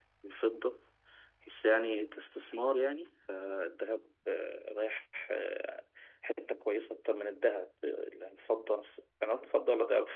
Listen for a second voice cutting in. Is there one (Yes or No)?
No